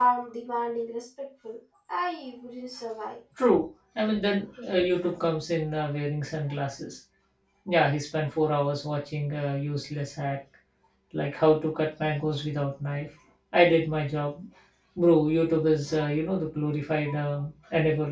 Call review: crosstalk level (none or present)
none